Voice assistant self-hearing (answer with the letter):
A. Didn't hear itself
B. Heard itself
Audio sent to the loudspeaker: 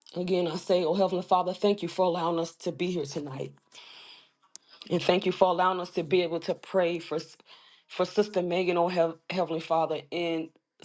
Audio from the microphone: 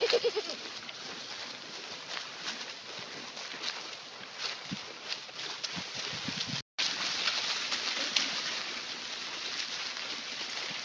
A